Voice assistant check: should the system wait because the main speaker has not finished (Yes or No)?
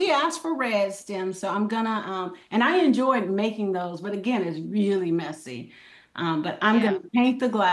Yes